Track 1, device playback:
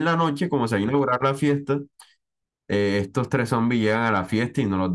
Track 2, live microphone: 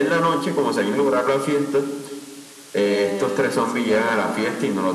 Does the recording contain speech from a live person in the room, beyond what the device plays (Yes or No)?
Yes